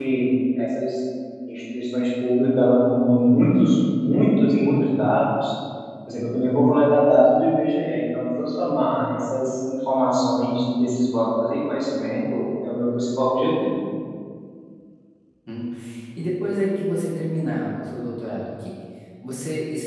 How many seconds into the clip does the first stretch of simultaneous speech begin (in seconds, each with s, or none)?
none